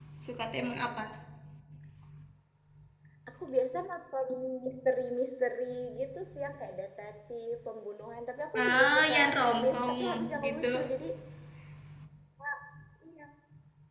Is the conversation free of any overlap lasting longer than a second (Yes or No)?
No